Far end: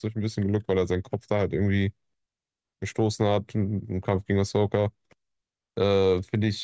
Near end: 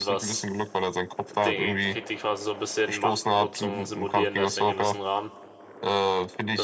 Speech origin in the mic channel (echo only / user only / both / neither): both